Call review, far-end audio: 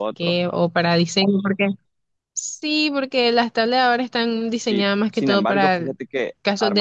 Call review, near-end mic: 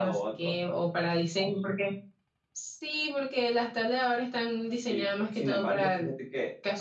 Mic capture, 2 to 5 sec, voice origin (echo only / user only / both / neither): echo only